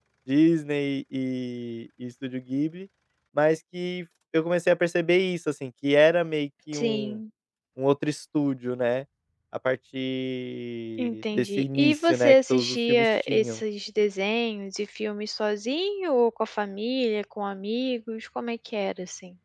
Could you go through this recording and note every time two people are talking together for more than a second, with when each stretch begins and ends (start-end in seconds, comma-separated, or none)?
11.0-13.6